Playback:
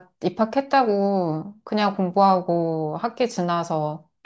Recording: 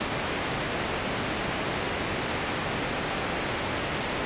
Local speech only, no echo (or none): none